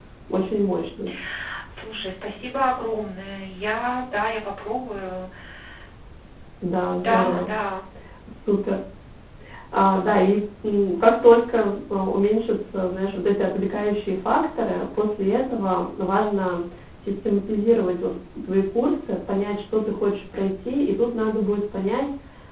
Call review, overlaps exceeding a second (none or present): none